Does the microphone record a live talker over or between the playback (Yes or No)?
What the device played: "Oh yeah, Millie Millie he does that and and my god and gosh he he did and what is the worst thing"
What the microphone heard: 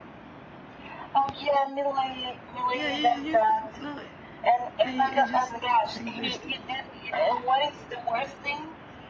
Yes